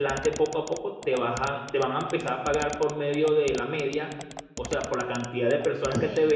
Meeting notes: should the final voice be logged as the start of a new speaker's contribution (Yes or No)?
No